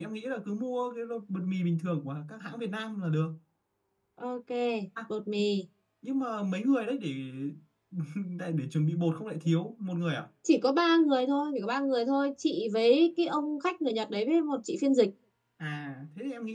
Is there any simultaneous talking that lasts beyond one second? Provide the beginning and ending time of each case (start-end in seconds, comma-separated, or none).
none